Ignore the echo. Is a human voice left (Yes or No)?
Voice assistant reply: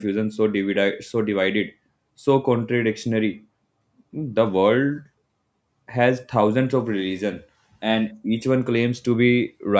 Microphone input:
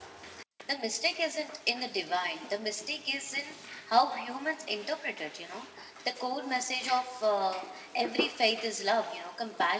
Yes